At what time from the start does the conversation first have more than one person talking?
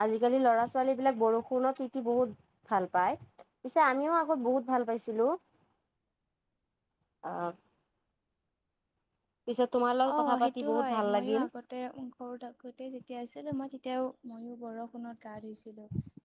10.2 s

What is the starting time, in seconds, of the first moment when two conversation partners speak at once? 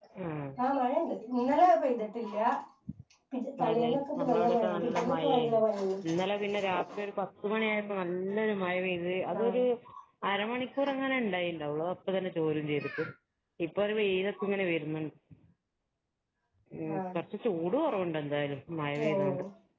3.7 s

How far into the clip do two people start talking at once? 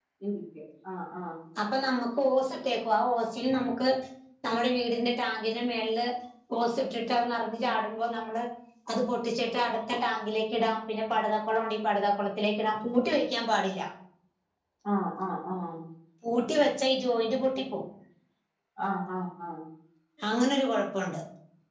none

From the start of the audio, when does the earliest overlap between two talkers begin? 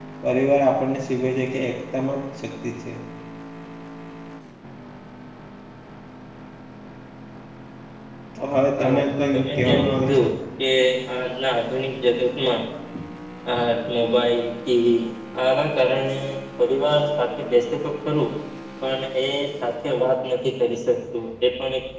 8.8 s

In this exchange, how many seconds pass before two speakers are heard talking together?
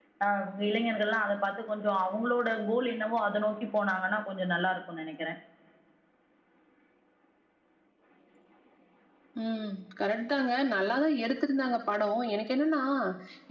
none

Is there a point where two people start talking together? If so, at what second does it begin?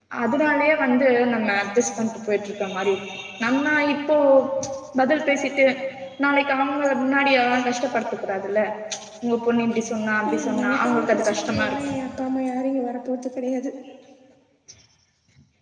10.2 s

